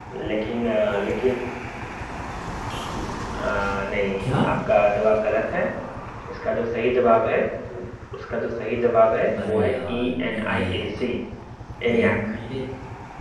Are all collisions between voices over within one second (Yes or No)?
No